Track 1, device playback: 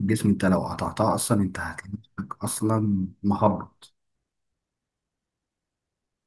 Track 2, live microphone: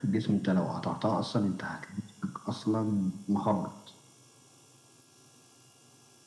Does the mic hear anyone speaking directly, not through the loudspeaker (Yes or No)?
No